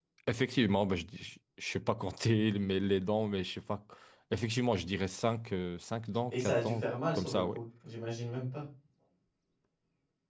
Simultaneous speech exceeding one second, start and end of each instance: 6.3-7.6

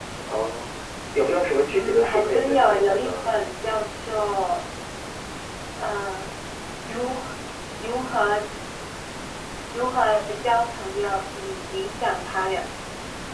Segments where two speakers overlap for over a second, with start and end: 1.7-3.2

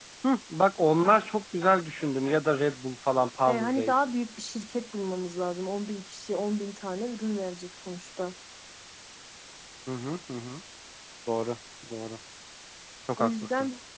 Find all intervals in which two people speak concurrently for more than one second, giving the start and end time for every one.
none

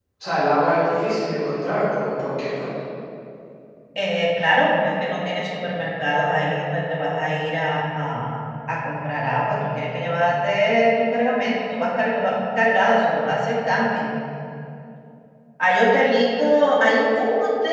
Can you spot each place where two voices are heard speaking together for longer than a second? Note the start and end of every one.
none

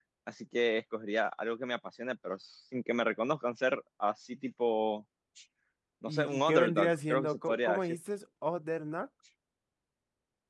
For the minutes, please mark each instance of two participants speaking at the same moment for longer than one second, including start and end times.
6.0-7.8

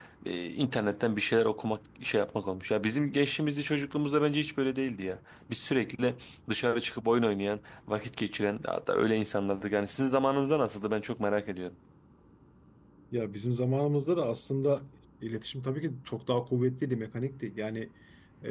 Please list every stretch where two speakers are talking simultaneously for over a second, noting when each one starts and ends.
none

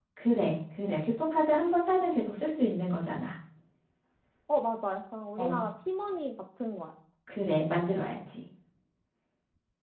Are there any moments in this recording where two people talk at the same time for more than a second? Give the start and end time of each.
none

